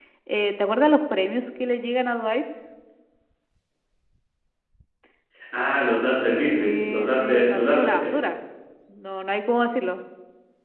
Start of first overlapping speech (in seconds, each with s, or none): 6.5 s